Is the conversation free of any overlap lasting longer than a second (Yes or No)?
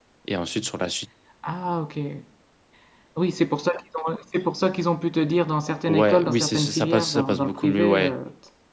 No